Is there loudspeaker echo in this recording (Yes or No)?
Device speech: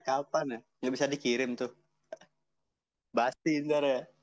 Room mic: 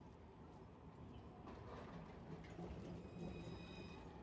No